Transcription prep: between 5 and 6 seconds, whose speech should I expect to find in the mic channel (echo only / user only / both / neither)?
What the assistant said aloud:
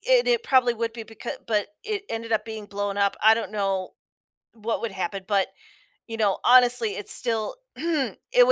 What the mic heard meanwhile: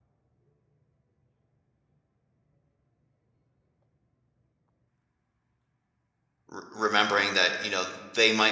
neither